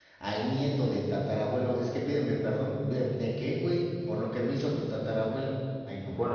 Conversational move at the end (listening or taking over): taking over